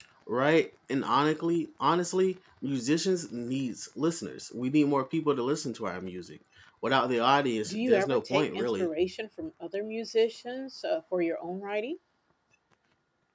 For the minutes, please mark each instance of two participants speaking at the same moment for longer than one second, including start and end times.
7.6-8.9

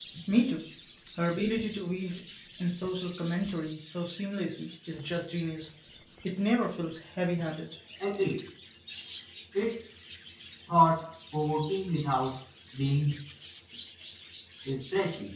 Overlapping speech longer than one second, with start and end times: none

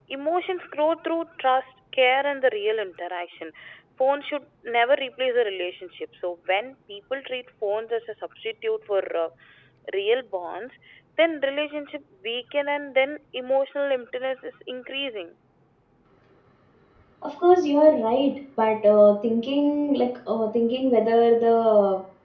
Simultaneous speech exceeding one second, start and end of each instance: none

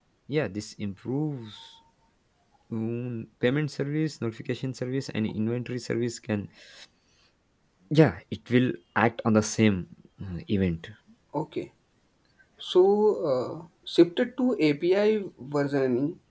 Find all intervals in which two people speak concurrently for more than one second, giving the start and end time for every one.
none

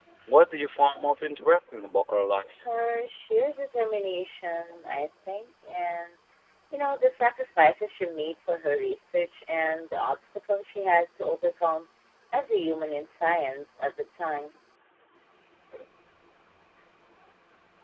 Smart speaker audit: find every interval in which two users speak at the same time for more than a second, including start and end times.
none

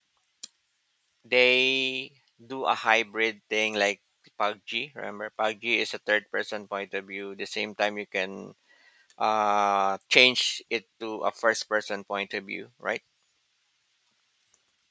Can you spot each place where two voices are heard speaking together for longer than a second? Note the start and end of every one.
none

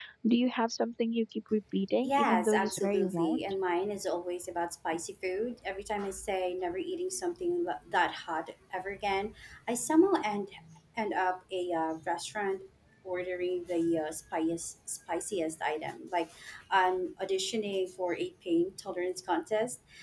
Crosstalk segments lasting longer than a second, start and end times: 2.0-3.4

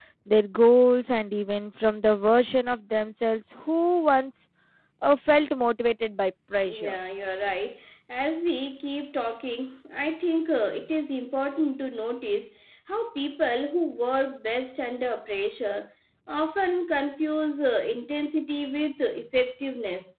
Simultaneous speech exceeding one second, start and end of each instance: none

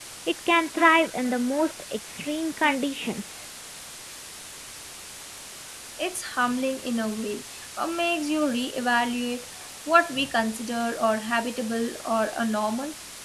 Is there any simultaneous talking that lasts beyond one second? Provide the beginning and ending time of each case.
none

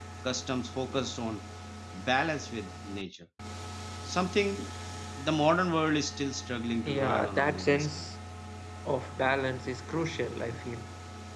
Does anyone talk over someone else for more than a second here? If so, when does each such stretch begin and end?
6.8-8.1

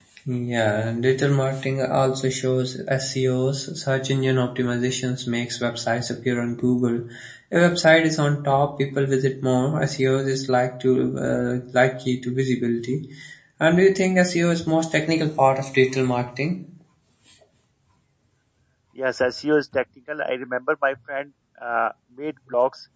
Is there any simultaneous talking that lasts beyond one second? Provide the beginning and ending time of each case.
none

